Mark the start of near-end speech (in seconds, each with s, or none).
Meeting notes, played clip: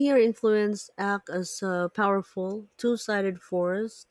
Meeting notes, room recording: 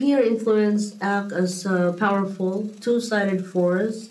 none